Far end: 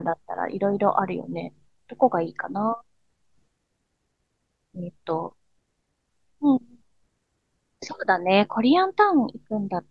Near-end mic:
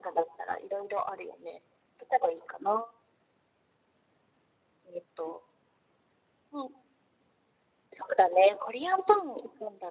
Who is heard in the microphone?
echo only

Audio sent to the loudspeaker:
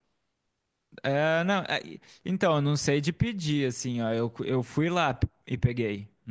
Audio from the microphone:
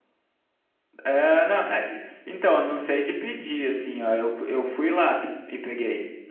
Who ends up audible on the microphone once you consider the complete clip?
echo only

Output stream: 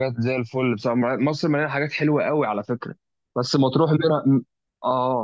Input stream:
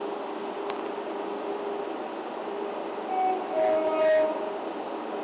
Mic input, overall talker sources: neither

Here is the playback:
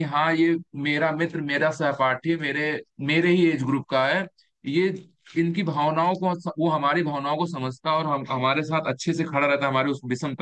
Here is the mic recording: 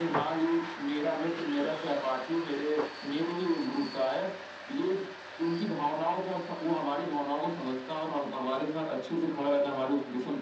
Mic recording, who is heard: echo only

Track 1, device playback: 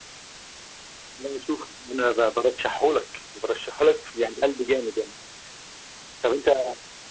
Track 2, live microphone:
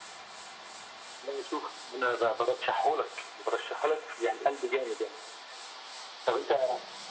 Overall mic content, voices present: echo only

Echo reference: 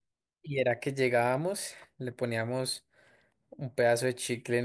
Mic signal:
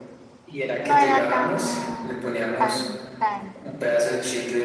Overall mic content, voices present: both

